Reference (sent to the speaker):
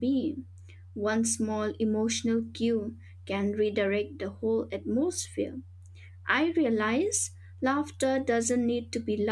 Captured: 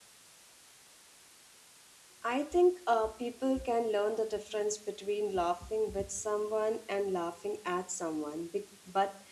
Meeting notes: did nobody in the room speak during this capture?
No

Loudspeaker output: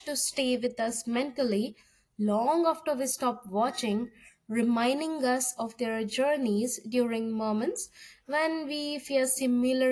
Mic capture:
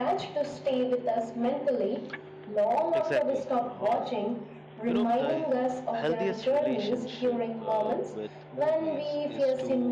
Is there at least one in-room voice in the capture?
Yes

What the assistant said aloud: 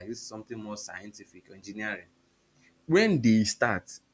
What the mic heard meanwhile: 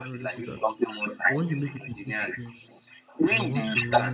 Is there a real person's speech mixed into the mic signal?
Yes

